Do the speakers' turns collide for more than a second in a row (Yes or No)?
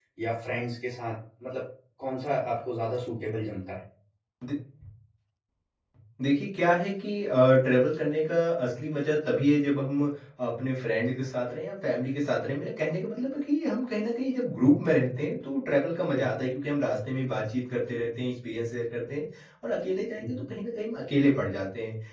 No